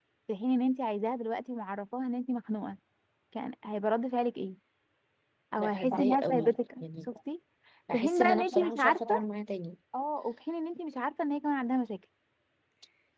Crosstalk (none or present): present